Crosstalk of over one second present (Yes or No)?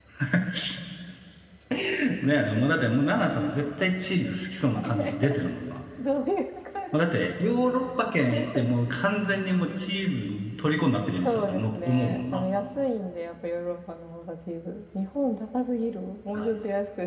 Yes